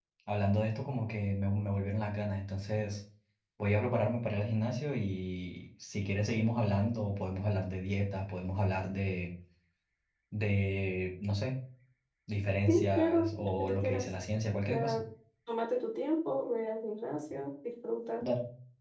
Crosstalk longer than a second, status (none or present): present